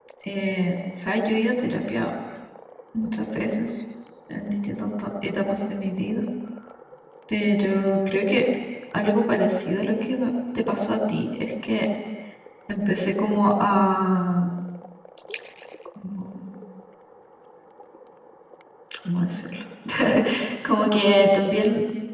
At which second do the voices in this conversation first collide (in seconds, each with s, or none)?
none